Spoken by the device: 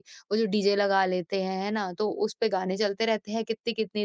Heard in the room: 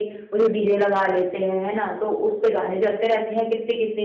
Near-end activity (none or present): none